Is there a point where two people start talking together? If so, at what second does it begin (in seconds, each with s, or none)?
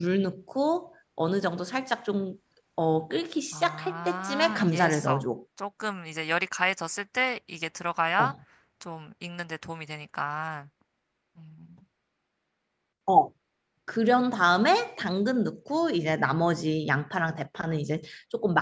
3.5 s